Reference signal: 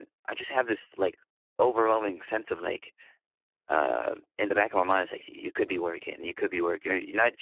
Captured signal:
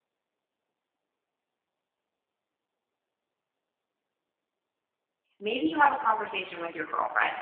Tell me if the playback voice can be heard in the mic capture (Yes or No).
No